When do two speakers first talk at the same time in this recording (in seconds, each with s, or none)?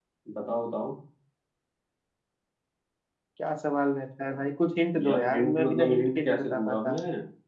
4.9 s